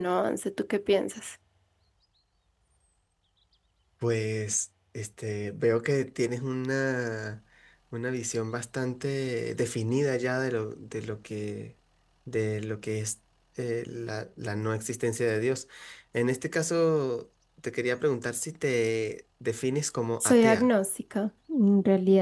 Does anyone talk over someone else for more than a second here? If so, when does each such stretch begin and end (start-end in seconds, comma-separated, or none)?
none